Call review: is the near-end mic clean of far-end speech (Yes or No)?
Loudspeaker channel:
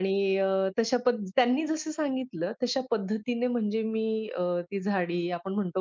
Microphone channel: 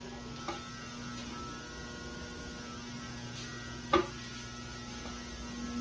Yes